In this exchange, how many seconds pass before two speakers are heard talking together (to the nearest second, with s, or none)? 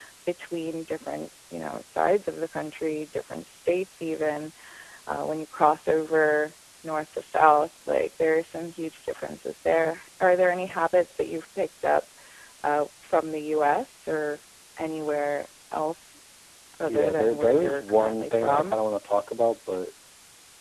17 s